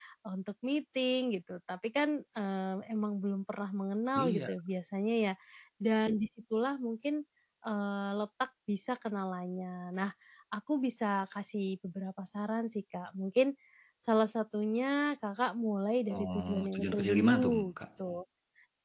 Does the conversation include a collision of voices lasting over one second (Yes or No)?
Yes